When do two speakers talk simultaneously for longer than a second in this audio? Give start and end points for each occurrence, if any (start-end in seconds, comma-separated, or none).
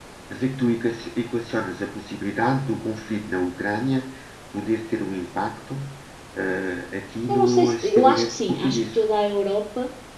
7.3-8.9